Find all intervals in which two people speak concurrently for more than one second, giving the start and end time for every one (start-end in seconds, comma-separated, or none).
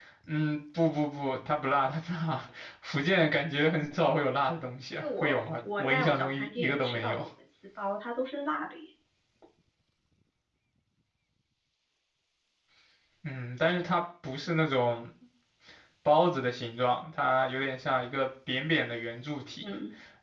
5.0-7.2